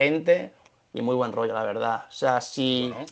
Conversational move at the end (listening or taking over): listening